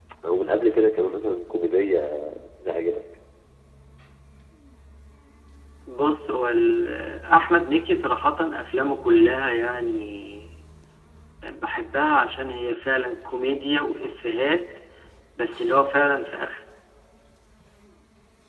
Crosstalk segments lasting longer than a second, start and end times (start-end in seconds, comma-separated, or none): none